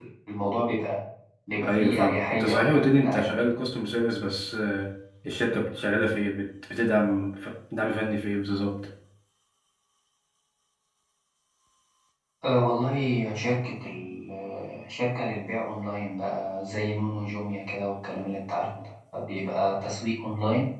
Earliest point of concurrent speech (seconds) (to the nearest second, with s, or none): 2 s